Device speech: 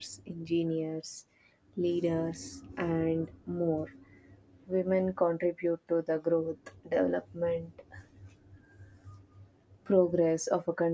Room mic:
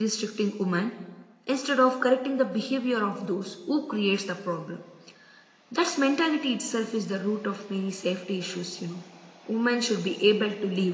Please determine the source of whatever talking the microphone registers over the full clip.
user only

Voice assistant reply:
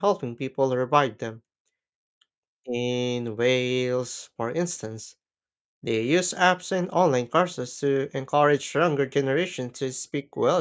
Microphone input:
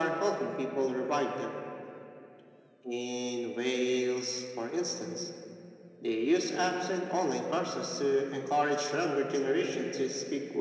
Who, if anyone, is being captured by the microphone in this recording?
echo only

